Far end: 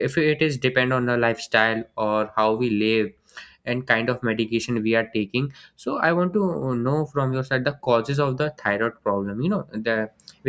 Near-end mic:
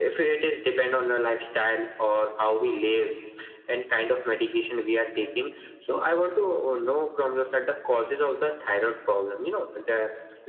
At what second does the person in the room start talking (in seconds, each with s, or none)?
none